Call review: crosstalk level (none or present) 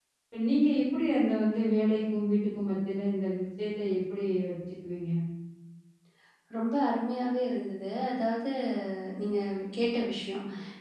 none